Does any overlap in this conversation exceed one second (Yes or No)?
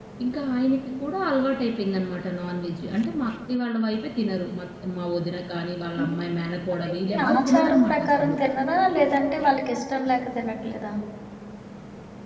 Yes